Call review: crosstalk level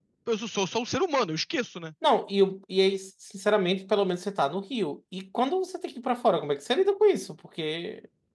none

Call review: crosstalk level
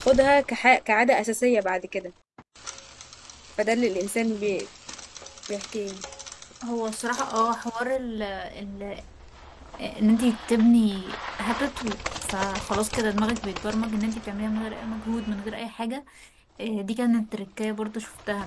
none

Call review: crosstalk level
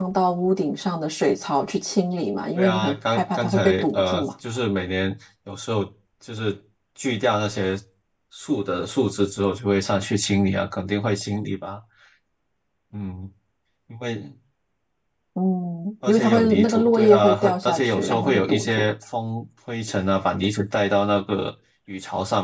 present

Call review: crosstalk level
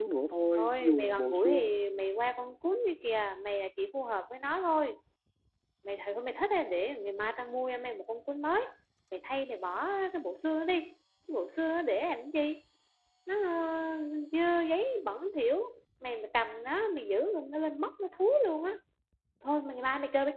present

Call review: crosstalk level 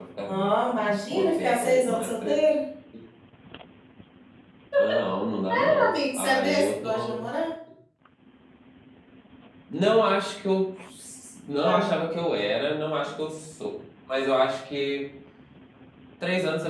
present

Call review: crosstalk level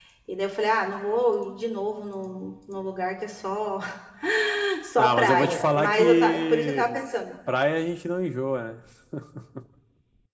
present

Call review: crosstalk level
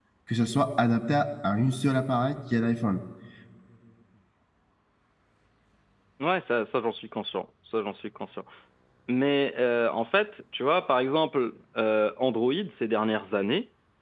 none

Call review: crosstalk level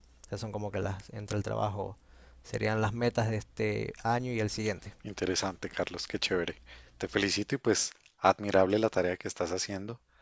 none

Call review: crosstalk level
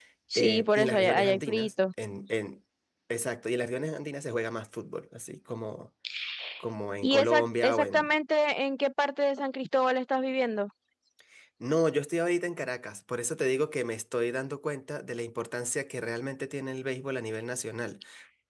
present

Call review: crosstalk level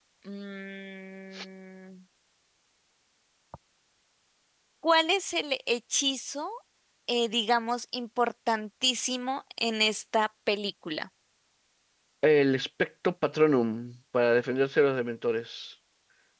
none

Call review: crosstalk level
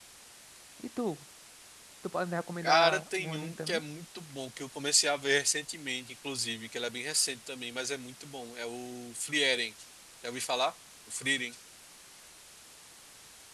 present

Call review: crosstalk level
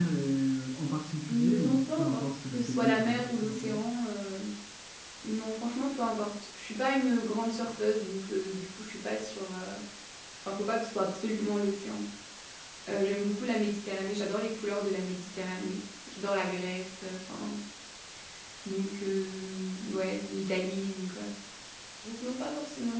present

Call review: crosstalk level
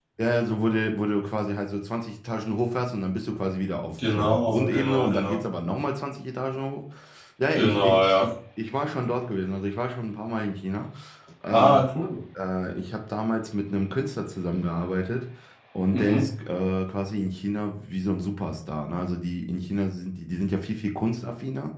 present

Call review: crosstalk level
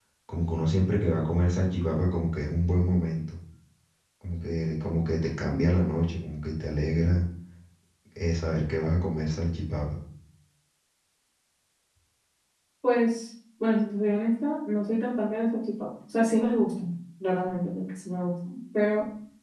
none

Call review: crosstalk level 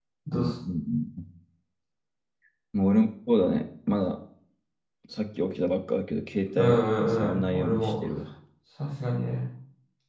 present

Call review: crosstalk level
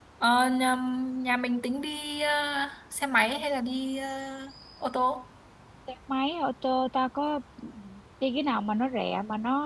none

